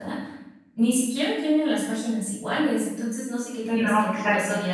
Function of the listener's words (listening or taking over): listening